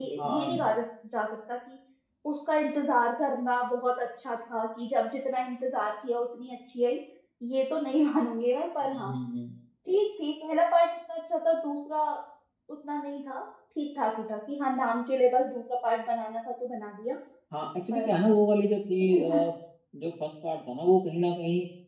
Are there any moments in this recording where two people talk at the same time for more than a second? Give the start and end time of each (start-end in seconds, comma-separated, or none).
none